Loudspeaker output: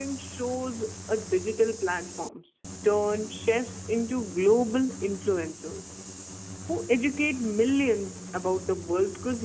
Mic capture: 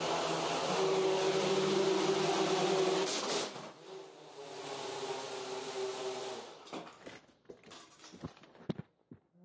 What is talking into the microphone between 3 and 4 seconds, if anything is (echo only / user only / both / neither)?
neither